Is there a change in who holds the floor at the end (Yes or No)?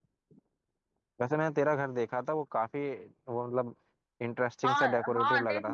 Yes